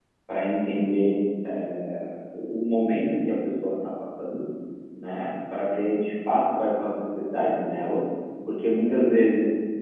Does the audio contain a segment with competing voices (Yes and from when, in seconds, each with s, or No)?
No